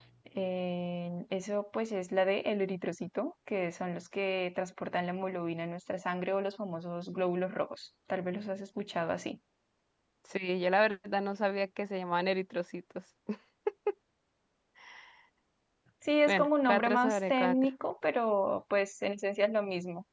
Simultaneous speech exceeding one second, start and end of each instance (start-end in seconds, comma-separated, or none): 16.3-17.6